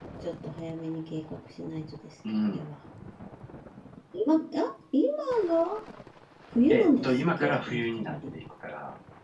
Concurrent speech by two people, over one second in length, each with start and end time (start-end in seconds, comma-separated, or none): 6.7-8.2